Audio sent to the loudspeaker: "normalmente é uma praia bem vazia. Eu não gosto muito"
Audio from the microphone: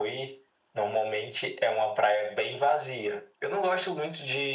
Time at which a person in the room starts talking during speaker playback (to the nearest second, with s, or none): none